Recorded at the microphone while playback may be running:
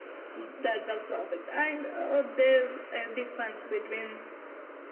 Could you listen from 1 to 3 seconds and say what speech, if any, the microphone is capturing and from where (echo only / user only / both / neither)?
echo only